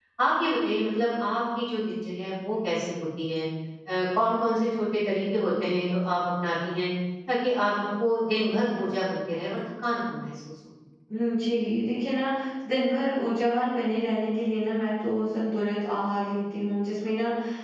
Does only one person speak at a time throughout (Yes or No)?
Yes